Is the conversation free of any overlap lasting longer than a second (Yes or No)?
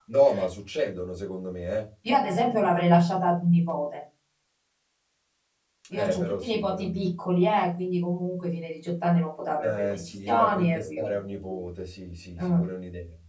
No